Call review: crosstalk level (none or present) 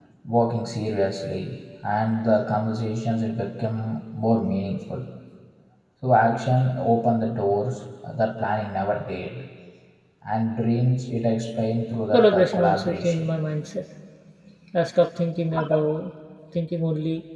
present